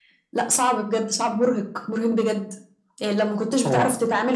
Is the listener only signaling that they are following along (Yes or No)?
Yes